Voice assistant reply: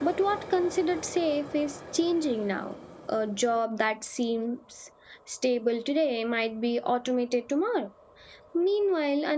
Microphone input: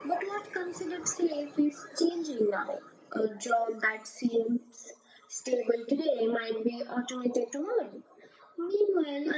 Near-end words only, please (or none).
none